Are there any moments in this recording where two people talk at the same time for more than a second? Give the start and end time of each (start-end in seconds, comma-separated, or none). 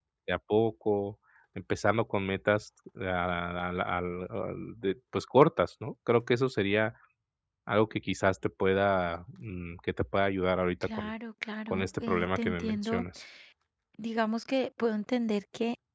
11.7-13.0